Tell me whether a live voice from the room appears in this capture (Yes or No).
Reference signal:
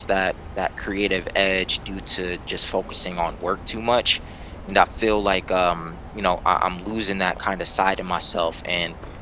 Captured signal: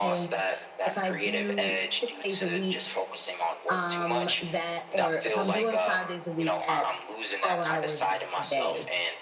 Yes